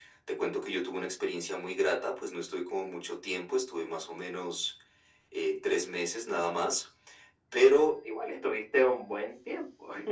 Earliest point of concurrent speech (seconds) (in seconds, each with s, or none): none